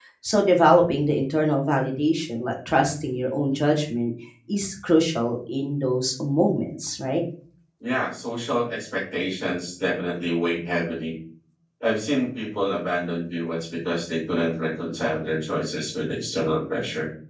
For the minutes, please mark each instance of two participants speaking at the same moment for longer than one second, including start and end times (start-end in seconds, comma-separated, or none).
none